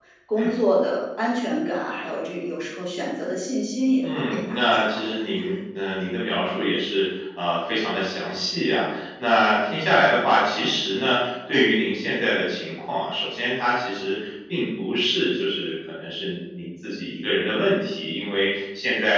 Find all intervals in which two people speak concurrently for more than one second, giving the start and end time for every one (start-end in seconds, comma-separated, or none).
4.0-5.3